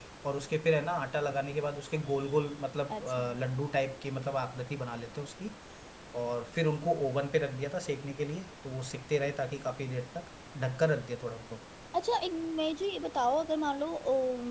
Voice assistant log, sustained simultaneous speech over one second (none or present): none